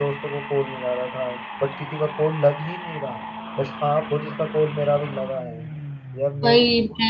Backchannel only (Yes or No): Yes